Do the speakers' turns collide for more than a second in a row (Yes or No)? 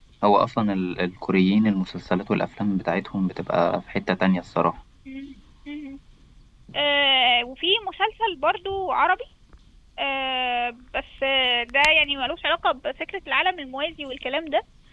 No